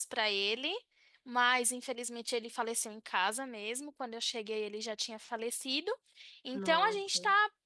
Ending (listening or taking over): listening